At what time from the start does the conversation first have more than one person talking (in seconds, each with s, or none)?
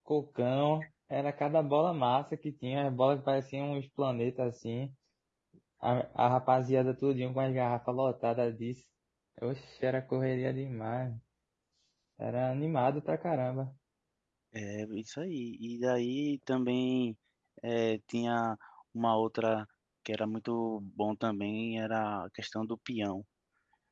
none